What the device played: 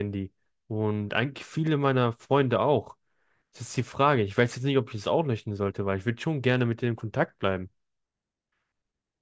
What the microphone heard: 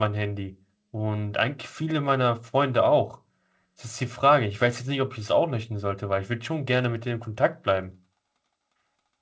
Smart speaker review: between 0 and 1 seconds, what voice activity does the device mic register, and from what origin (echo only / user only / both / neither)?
echo only